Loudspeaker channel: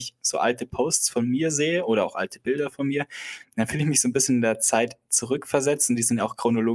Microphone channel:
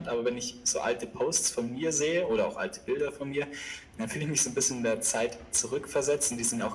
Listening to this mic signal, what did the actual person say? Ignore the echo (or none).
none